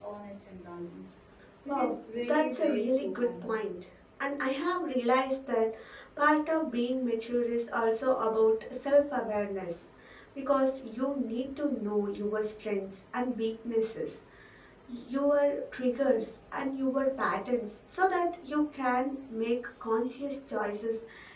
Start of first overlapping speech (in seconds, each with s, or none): 1.6 s